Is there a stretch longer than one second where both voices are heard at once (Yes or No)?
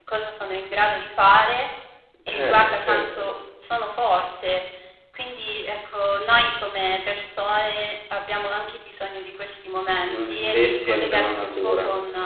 Yes